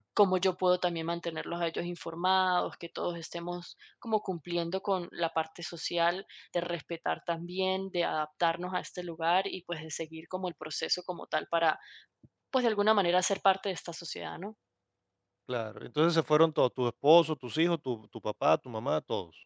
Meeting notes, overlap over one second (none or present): none